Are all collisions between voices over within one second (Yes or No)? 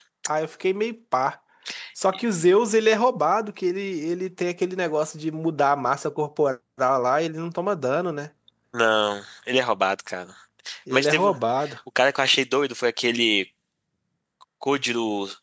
Yes